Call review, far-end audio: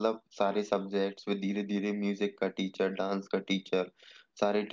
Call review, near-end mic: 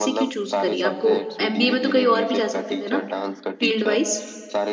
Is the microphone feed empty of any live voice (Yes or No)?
No